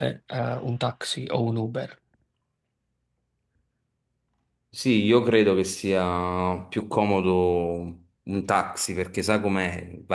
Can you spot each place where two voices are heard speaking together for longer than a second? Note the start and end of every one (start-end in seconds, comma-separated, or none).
none